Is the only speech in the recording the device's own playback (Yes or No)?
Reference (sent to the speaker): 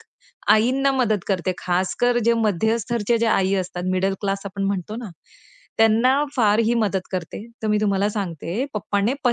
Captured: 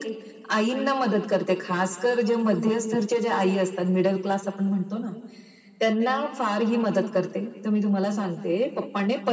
Yes